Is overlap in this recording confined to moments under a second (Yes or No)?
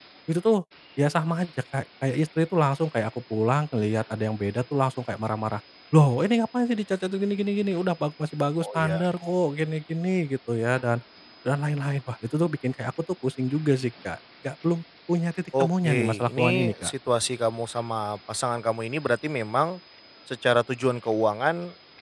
No